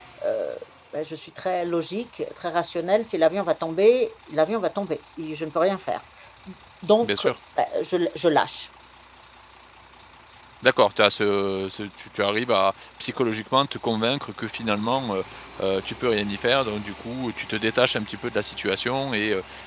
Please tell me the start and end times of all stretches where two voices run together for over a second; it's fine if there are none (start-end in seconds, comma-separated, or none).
none